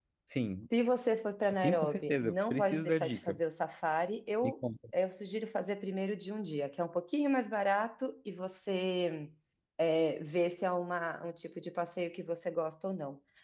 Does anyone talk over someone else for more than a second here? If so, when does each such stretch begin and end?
1.5-3.4

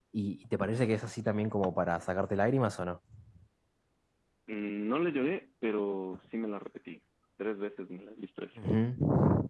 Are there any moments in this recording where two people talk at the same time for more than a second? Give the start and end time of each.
none

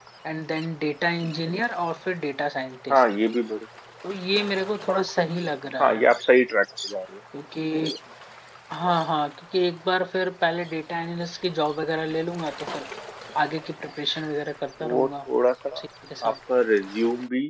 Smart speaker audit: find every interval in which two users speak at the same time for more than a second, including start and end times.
none

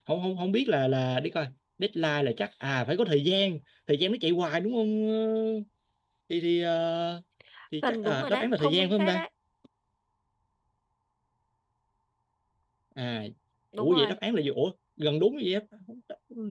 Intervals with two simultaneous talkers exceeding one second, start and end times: 7.9-9.2

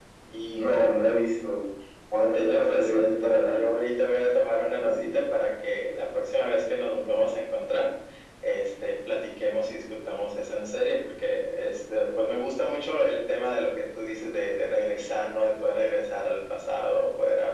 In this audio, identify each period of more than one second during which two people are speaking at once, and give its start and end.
2.3-3.6

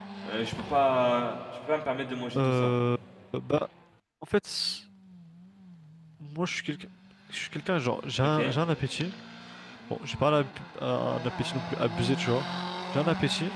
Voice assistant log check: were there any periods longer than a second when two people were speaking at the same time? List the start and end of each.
none

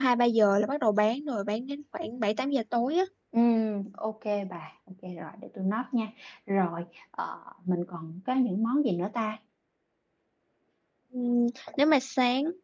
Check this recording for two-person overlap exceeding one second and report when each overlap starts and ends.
none

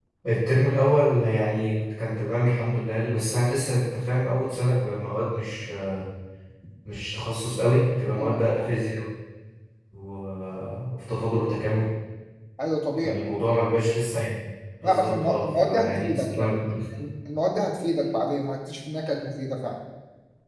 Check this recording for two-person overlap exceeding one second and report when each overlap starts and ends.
14.8-16.5

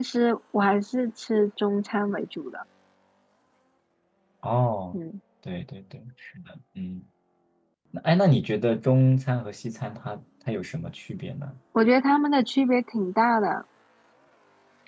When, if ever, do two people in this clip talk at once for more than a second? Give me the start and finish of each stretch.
none

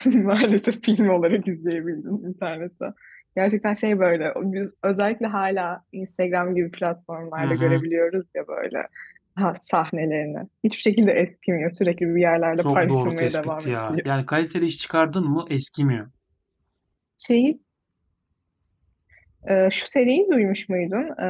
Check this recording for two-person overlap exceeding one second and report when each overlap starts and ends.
12.6-14.0

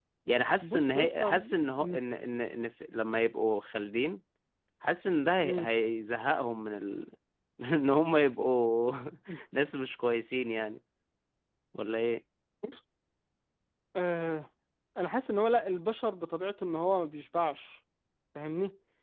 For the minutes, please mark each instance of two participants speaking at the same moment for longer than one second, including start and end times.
0.6-2.0

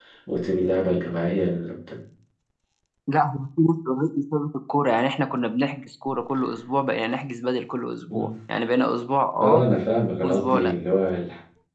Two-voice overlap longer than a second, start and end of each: none

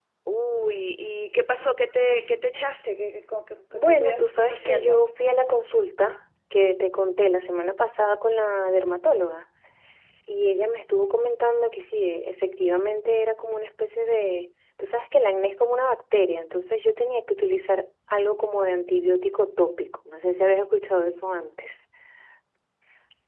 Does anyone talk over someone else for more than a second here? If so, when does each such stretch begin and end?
3.7-5.0

